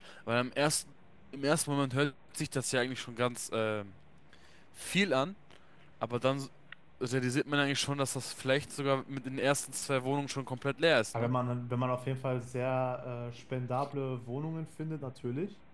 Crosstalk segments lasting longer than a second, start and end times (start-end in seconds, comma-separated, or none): none